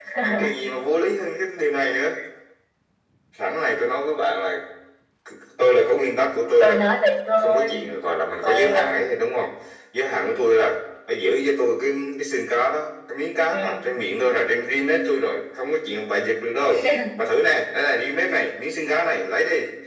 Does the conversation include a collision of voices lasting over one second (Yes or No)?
No